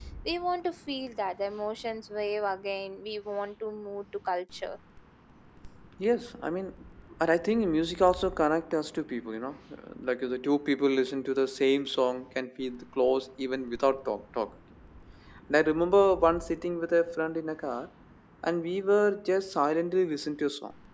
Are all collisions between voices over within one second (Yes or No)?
Yes